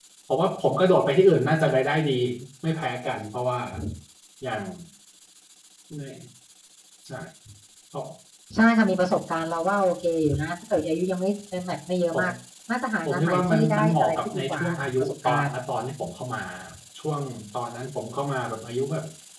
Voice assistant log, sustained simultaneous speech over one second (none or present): present